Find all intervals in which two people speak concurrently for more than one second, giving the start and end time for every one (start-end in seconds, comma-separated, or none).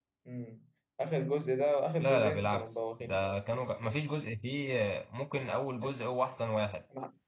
2.0-3.4